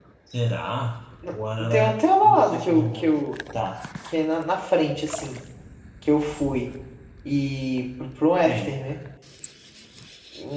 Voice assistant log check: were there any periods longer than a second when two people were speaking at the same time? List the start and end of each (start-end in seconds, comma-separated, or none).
1.7-3.2